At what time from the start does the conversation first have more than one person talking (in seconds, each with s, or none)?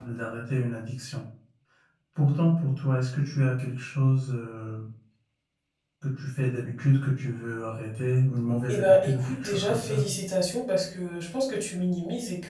8.7 s